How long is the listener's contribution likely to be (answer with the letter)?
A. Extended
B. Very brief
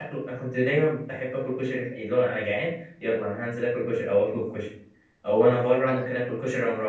B